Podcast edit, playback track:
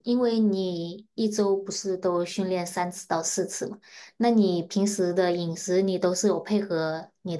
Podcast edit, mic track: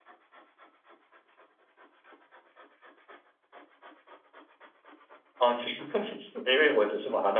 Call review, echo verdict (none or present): none